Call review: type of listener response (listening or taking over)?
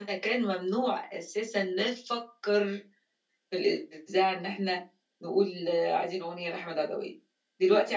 listening